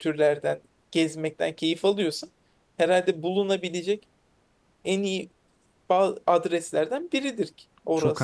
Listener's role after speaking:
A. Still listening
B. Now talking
B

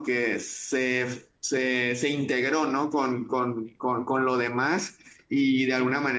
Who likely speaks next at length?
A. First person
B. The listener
A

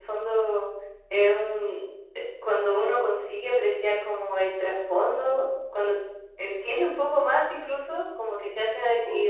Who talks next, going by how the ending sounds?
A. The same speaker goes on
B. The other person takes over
A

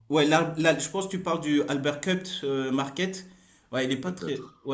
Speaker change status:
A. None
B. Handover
A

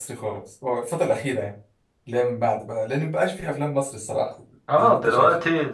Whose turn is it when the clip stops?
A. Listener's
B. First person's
A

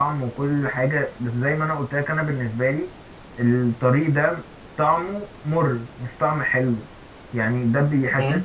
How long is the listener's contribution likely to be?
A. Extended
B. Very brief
B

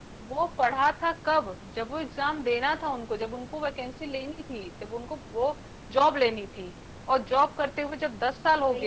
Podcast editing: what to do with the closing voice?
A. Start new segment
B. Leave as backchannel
B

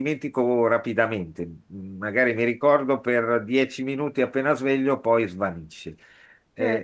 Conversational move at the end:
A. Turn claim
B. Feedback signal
A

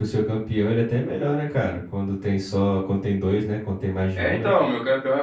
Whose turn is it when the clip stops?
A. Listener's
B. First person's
A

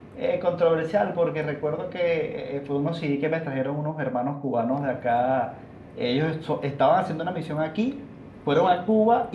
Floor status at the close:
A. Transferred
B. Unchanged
B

